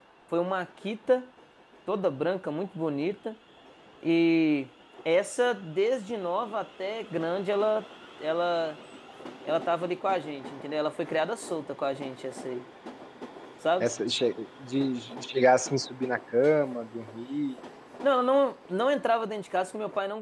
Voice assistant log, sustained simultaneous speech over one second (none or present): none